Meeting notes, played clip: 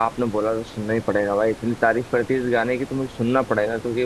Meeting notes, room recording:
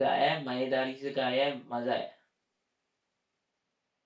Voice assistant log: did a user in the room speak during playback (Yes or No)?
Yes